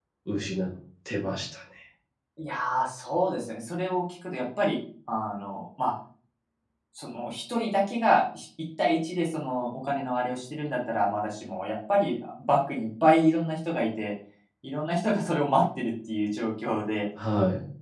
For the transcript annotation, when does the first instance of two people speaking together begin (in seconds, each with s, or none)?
none